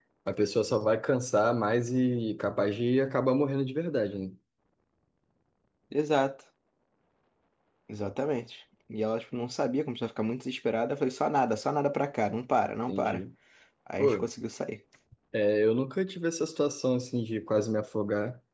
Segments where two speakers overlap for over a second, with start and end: none

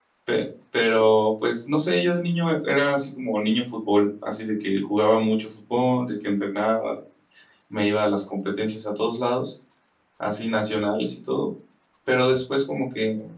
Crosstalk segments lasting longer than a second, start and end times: none

